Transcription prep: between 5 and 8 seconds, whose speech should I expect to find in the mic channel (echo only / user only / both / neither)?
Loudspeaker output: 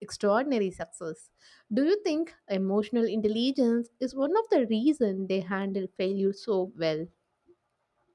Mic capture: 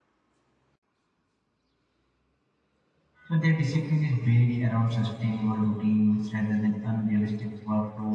user only